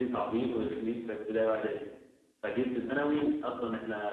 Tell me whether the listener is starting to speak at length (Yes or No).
No